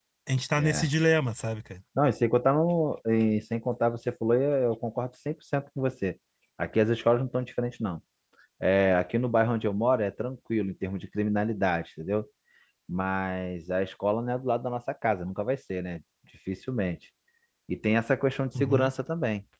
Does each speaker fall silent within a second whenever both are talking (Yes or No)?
Yes